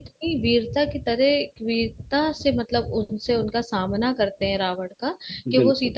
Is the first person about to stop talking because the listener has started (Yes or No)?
No